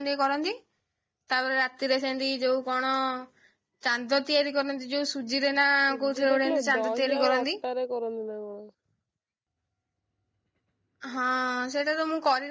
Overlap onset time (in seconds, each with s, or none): 6.0 s